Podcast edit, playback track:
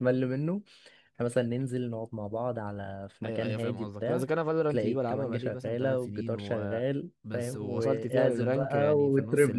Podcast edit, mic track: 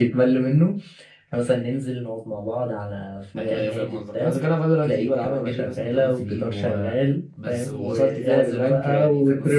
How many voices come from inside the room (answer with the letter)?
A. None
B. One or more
A